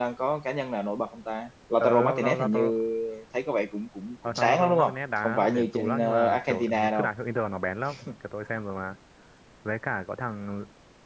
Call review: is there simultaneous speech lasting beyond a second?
Yes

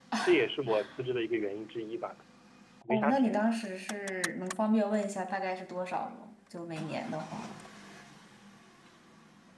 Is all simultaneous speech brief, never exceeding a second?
Yes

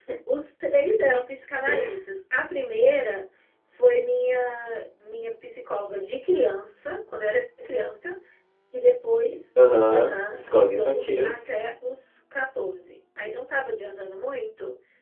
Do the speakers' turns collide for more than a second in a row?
Yes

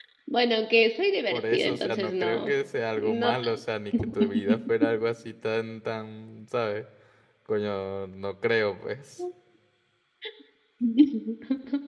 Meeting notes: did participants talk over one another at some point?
Yes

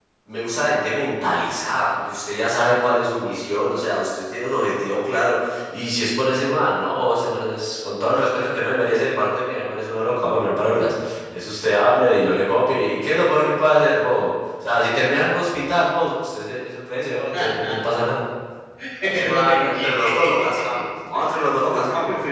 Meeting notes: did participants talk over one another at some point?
Yes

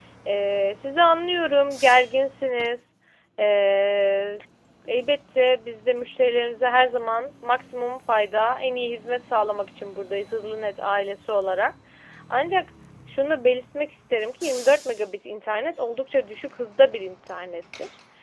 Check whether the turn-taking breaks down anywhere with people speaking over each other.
No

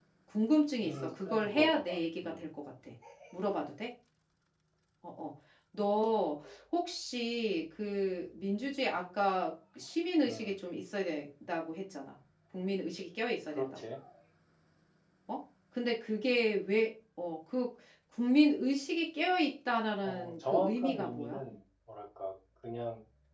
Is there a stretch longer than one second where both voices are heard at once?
Yes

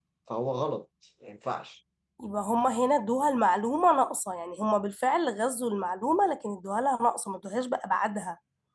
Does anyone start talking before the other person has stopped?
No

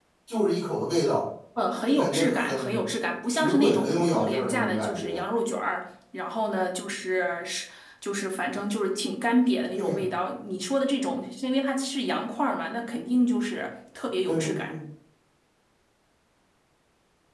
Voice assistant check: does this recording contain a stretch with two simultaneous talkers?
Yes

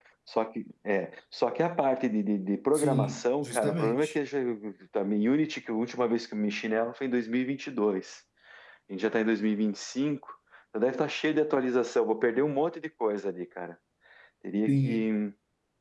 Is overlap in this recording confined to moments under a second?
No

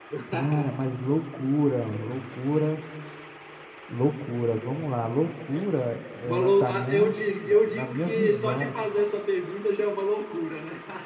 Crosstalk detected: Yes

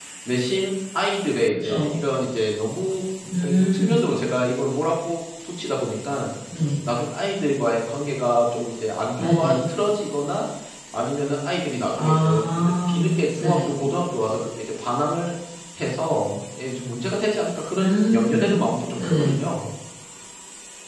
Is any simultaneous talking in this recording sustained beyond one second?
Yes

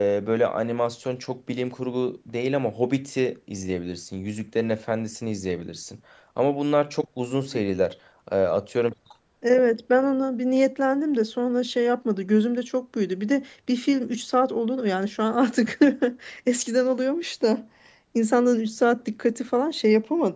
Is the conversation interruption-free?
Yes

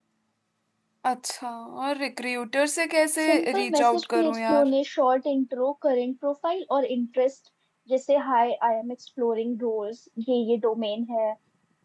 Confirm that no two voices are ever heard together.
No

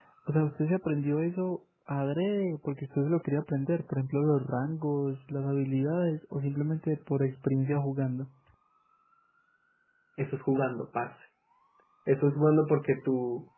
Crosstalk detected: No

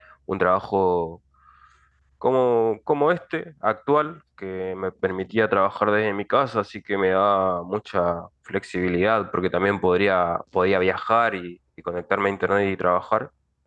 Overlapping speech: No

